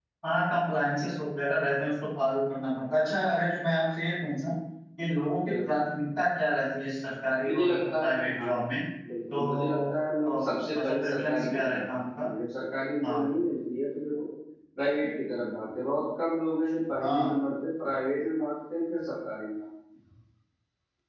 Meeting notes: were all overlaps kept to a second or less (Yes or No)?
No